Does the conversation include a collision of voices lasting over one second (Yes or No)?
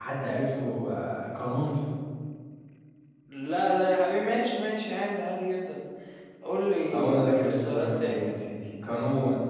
Yes